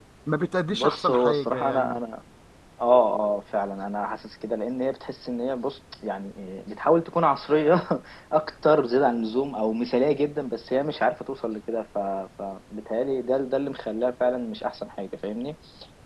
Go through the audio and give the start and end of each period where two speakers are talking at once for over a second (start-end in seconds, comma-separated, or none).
0.7-2.0